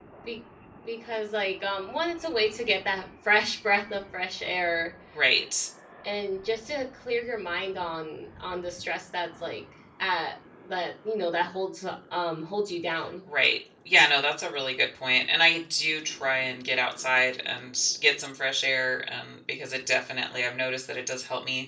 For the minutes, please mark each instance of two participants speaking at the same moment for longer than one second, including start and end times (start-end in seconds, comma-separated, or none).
none